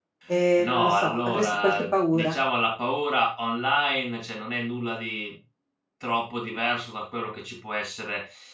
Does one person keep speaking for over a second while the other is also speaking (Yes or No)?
Yes